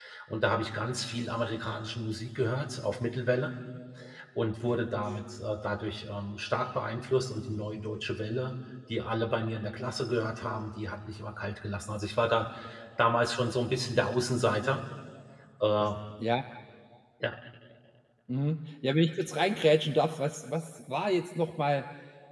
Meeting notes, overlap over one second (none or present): none